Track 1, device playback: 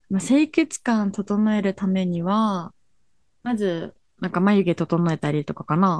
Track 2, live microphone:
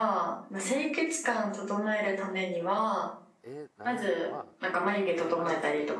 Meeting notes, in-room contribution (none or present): present